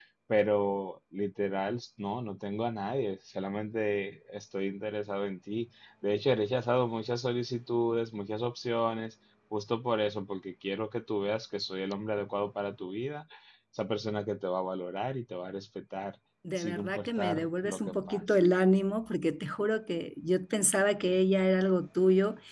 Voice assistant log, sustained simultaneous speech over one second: present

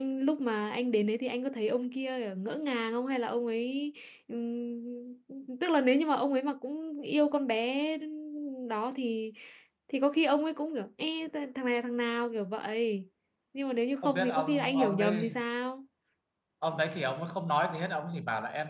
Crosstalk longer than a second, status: present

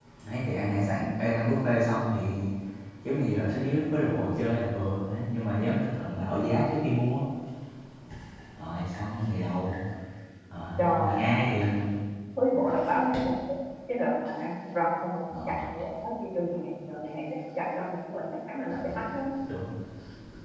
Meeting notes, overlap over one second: none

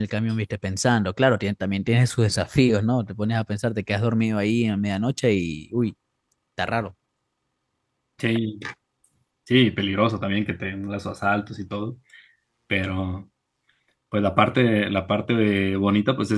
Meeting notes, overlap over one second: none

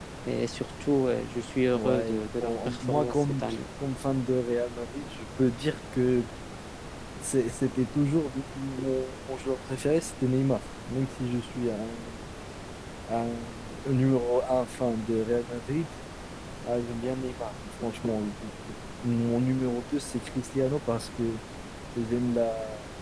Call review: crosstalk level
present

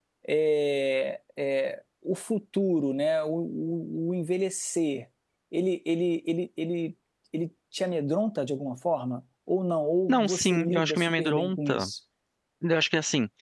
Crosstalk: present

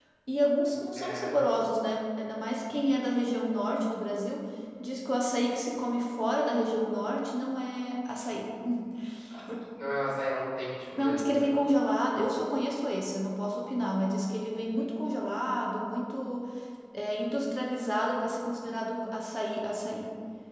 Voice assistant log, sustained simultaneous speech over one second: none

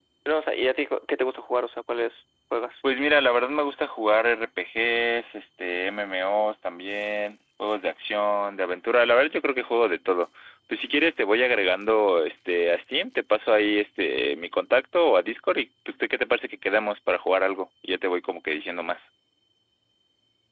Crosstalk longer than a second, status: none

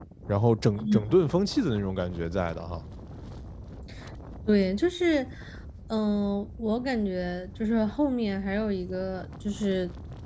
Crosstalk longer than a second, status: none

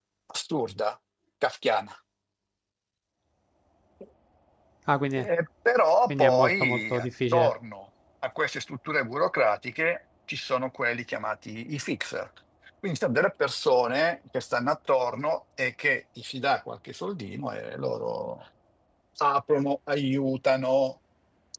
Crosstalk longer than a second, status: present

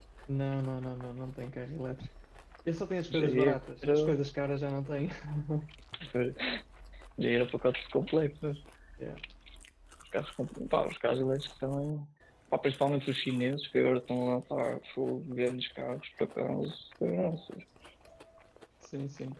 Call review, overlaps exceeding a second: none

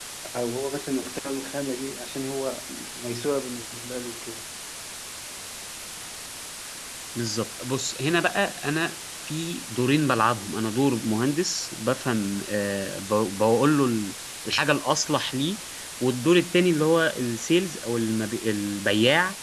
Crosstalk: none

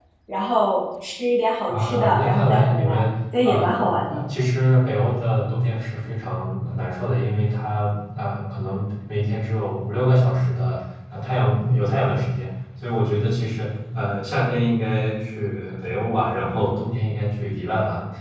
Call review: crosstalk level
present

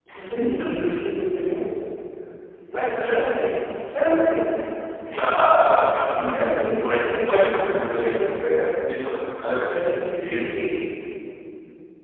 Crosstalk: present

